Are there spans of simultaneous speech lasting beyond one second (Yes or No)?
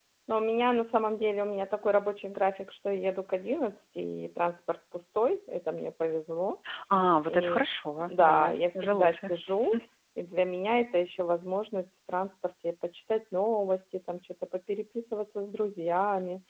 Yes